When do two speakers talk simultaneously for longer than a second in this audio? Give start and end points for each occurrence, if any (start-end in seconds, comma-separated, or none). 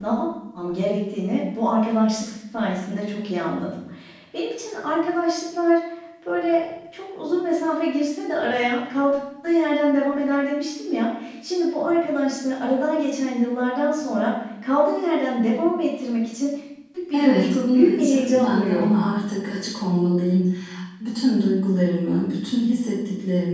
17.1-18.9